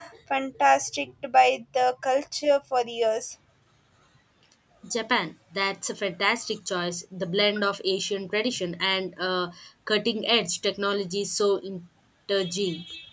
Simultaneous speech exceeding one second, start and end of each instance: none

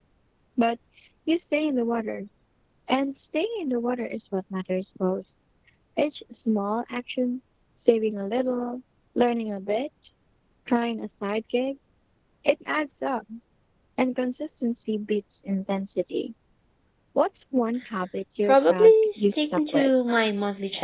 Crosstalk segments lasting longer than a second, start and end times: 18.5-19.9

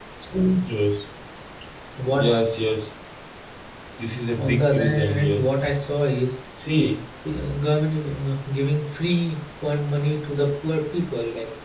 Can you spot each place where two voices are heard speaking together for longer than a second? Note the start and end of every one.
4.4-5.7

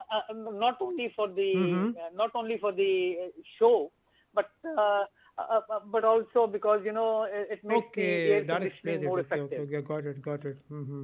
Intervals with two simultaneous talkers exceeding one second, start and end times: 7.7-9.7

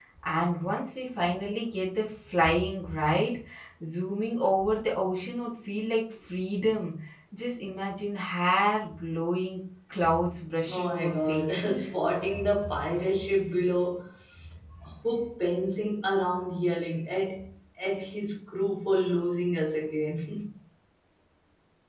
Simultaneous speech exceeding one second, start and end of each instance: 10.7-11.9

